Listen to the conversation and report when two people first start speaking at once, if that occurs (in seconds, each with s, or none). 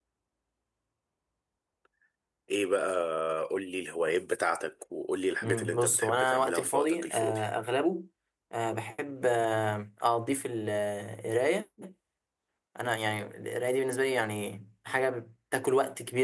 5.4 s